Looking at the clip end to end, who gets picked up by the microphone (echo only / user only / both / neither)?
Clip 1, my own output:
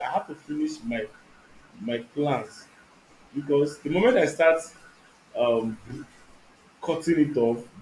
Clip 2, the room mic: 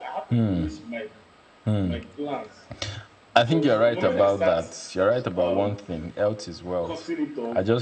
both